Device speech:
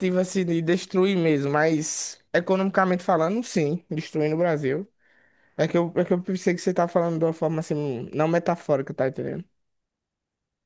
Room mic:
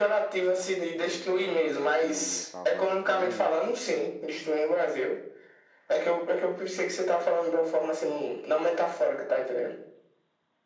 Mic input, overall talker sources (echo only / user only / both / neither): both